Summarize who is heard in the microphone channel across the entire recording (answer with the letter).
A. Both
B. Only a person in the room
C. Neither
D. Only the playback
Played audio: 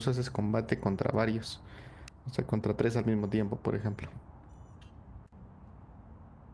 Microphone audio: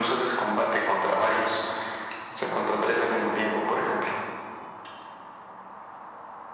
D